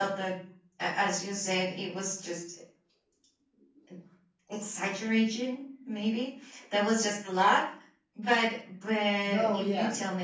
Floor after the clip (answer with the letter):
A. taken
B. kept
B